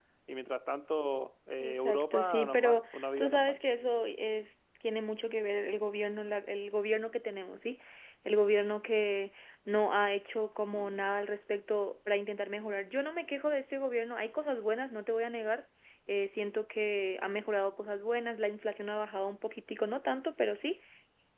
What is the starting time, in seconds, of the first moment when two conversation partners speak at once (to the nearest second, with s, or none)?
2 s